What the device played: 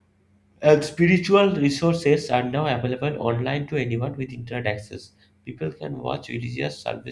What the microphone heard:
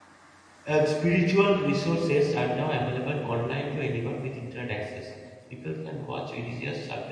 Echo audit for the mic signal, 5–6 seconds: echo only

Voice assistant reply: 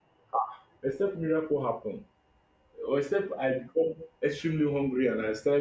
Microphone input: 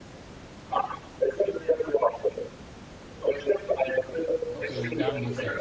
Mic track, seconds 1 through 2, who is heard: echo only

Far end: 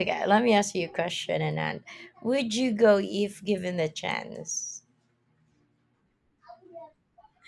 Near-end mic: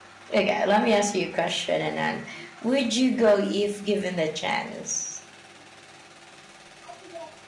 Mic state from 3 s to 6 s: echo only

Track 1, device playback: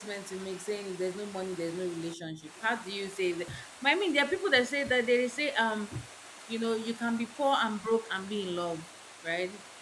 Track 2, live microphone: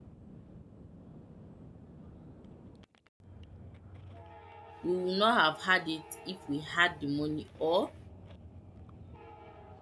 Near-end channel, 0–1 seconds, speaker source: neither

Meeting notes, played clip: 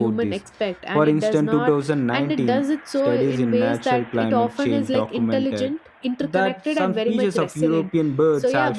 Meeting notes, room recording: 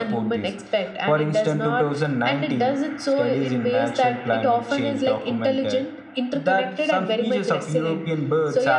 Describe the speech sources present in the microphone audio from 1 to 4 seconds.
echo only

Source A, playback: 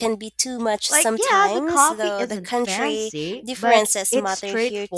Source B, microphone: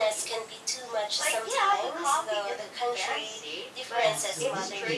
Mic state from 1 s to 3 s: echo only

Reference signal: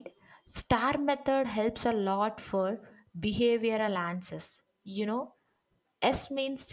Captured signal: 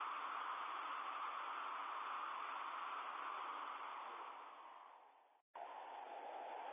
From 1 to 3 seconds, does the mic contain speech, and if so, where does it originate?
neither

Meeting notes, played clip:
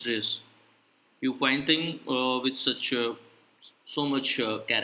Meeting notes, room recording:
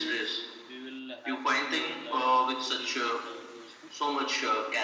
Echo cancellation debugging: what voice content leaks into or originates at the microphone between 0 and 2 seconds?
both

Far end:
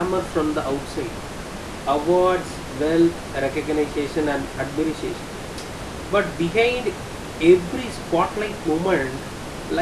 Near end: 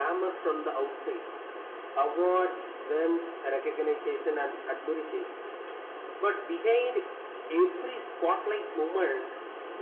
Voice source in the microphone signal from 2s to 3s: echo only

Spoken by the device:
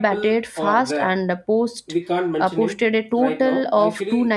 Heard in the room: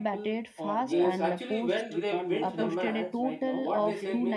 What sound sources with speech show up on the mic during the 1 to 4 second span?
both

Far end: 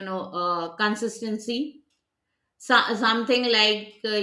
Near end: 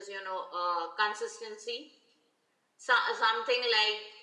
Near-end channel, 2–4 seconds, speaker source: echo only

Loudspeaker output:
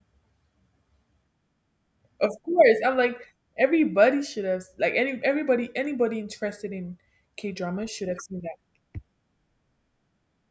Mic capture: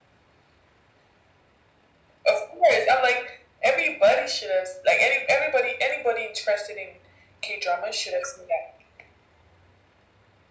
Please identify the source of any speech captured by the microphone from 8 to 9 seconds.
echo only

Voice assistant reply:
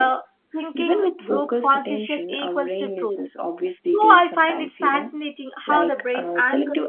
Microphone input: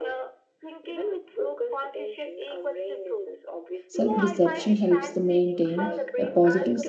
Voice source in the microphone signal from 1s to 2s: echo only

